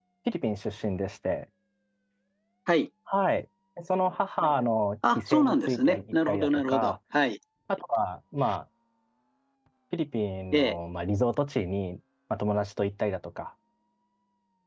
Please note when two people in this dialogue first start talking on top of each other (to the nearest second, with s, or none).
5 s